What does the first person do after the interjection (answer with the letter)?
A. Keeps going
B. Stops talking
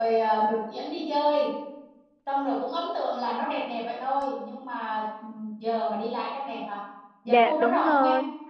B